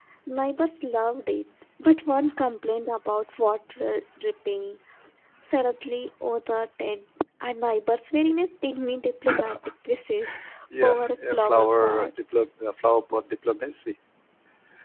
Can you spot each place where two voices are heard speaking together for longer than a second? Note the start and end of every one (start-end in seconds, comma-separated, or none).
10.8-12.1